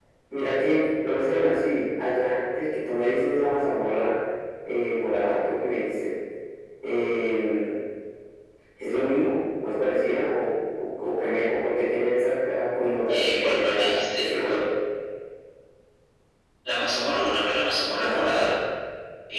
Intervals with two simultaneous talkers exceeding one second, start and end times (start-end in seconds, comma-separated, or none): 13.1-14.6